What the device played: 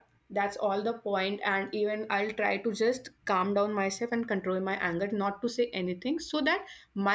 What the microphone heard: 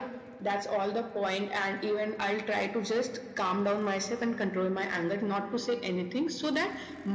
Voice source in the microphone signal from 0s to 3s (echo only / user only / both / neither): echo only